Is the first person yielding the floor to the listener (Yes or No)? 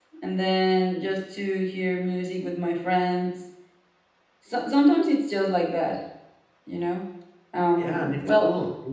Yes